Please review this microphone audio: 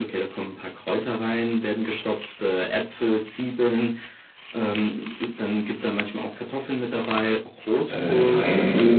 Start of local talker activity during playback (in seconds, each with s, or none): 7.9 s